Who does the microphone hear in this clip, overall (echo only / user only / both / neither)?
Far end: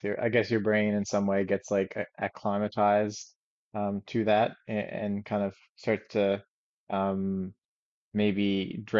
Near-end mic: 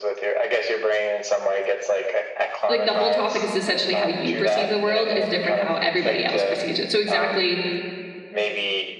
both